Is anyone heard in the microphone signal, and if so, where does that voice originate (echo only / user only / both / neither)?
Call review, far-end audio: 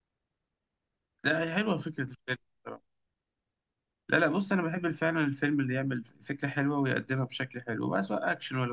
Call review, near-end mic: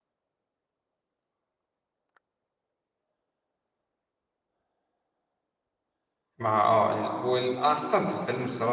user only